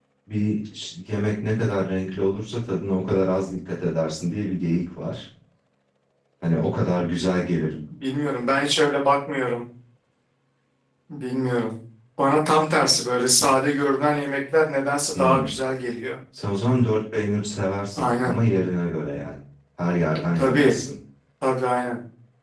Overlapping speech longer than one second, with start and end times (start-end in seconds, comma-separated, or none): none